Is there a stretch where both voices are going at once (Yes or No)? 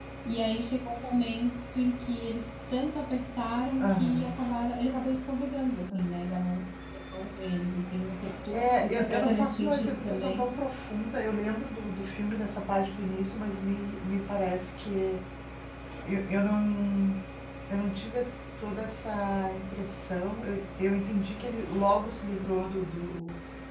Yes